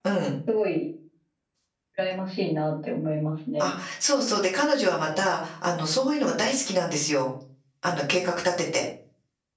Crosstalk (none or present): none